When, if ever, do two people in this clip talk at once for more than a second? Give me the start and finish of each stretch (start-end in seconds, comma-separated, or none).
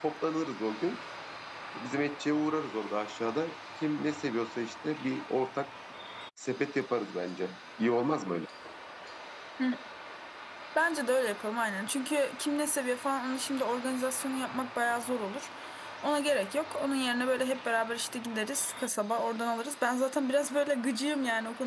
none